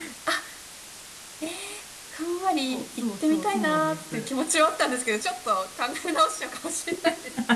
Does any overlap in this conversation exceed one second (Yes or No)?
Yes